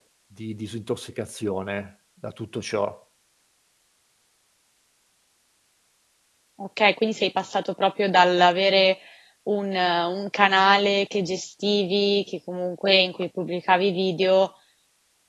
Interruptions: none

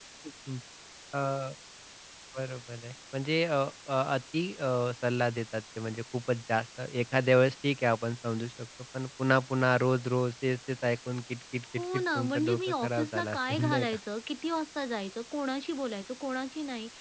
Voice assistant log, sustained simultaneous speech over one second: present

